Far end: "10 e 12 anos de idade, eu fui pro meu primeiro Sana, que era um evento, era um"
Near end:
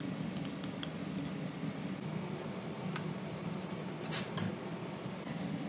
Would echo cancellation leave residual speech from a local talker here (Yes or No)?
No